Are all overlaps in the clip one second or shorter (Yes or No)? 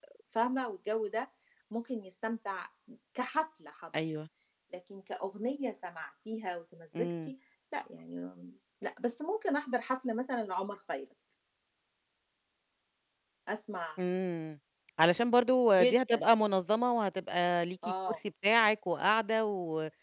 Yes